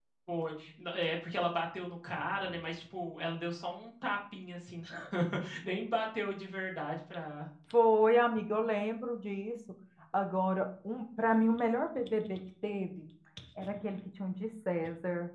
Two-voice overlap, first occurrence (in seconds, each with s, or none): none